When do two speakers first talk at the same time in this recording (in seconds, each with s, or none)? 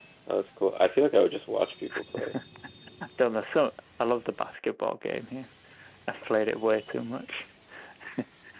none